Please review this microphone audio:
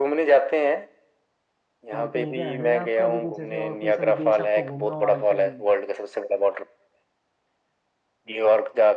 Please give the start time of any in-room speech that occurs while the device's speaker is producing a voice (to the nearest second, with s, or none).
2 s